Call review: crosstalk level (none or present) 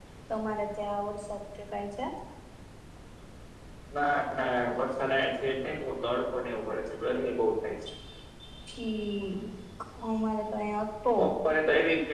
none